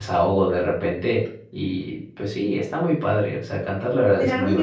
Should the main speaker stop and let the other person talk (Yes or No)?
Yes